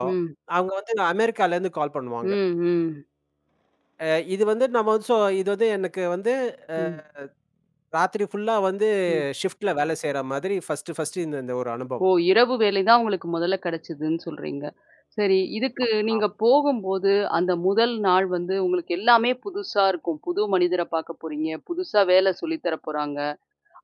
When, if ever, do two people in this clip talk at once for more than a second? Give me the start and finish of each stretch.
none

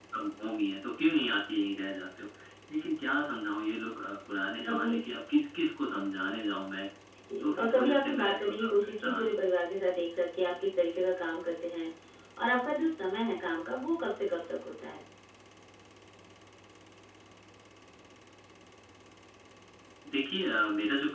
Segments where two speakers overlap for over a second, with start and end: 7.4-9.3

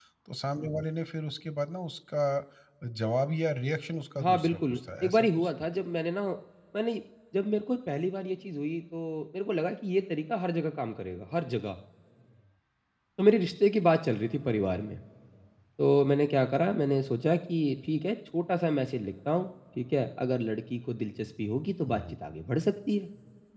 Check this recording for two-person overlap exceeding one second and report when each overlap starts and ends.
4.2-5.5

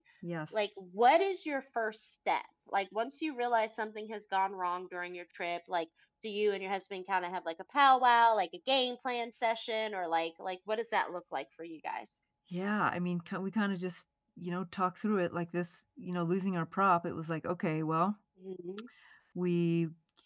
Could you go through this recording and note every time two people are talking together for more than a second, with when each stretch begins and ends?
none

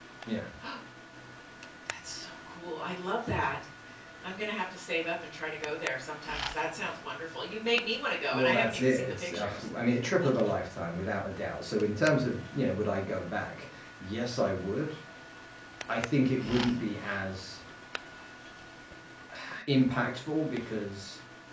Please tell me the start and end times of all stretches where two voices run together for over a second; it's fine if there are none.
8.3-9.7

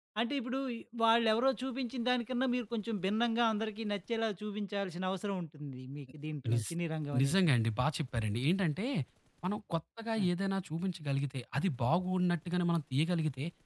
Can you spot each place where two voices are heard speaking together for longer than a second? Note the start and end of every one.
none

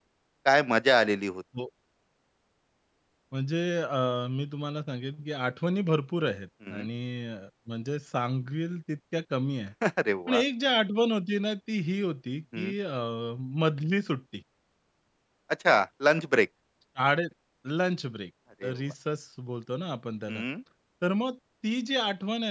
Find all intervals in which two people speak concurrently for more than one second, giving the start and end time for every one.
none

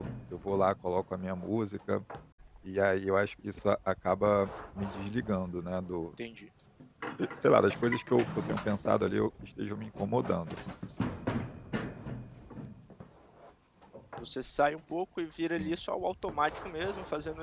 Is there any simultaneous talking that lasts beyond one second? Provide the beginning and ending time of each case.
none

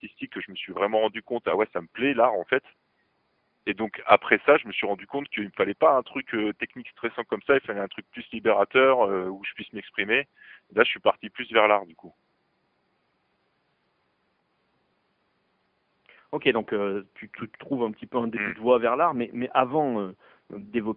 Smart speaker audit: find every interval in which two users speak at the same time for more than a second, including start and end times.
none

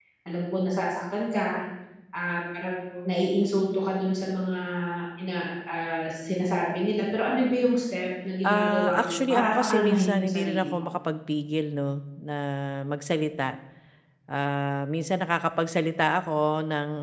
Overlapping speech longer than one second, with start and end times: 8.4-10.9

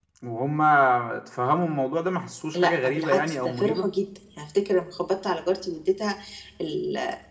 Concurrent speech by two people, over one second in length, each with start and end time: 2.5-3.9

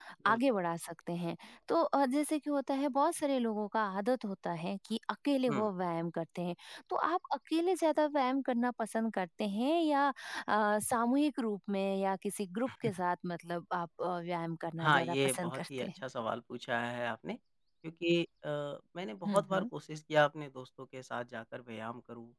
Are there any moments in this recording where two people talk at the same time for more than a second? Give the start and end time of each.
14.8-16.0

